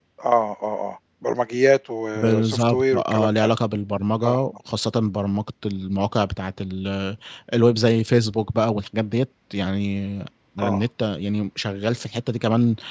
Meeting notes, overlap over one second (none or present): present